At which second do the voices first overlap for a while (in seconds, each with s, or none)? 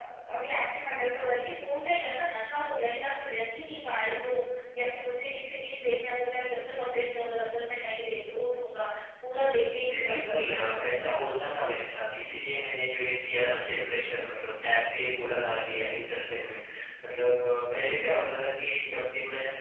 9.9 s